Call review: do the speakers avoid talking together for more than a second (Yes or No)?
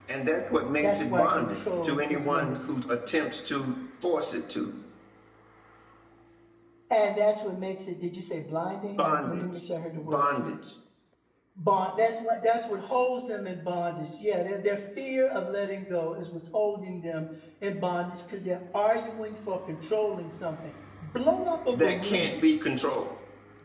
No